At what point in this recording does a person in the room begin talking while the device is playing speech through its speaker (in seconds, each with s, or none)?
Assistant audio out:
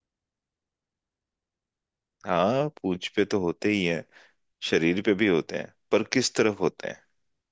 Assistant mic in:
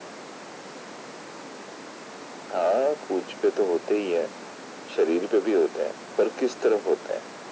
none